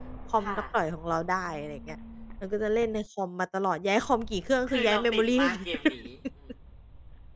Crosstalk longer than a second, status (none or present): present